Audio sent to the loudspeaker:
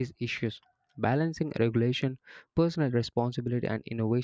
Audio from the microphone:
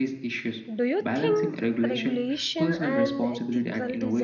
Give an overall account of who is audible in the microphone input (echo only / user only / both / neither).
both